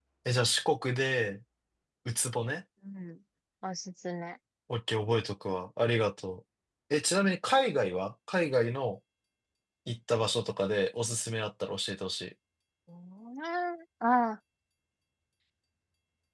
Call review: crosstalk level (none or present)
none